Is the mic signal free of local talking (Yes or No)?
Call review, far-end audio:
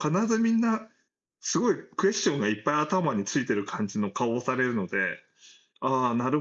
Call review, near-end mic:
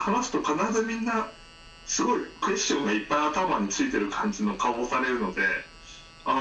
Yes